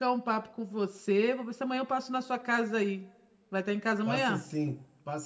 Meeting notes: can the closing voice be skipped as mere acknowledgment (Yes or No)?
No